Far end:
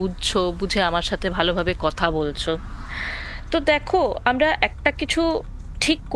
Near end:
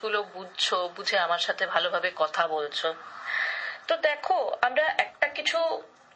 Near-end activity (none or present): none